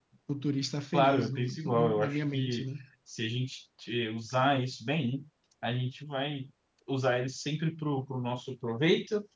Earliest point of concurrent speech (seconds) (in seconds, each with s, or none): 0.9 s